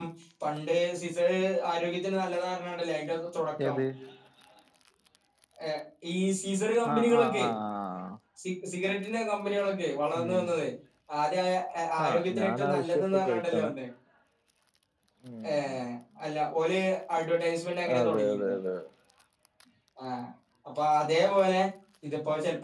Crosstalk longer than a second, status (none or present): present